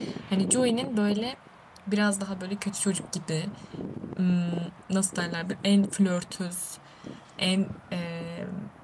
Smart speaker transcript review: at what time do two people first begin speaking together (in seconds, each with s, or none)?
none